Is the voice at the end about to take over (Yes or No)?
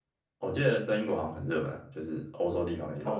Yes